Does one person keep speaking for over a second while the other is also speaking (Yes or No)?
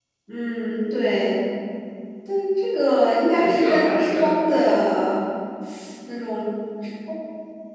Yes